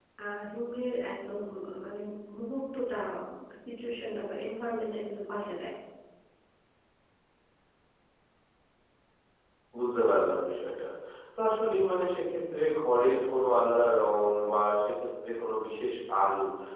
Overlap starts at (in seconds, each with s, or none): none